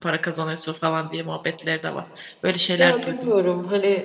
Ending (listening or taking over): taking over